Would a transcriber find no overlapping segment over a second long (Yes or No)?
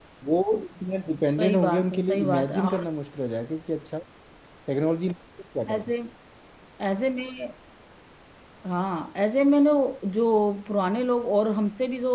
No